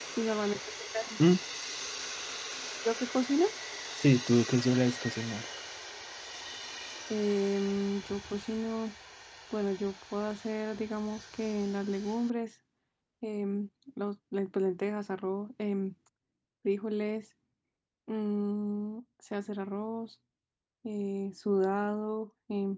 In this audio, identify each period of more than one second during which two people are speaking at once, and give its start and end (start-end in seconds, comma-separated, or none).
none